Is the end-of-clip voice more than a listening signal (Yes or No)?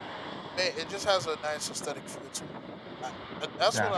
No